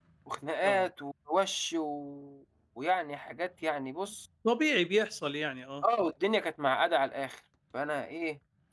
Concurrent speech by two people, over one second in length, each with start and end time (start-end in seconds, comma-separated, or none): none